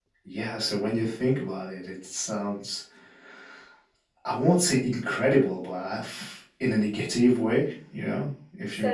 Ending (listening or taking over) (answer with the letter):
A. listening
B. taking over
B